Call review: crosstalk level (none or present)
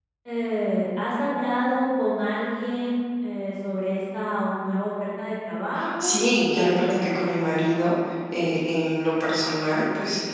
present